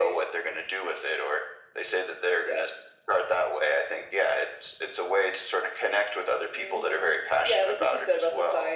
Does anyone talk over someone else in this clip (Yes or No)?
Yes